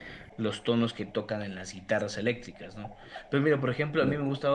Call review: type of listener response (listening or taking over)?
listening